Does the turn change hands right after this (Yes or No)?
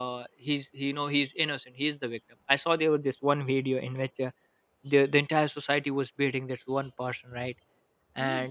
No